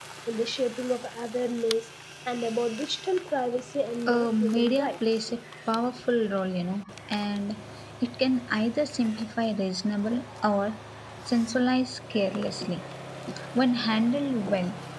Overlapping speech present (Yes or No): Yes